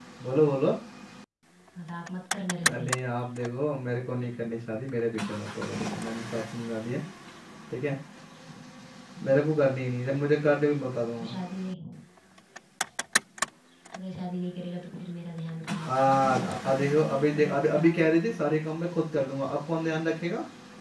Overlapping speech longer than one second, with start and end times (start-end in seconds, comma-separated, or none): 15.9-18.5